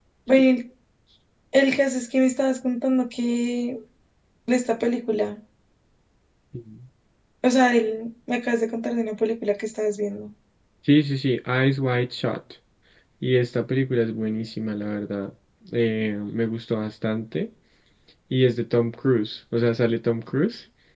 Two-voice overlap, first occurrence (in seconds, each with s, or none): none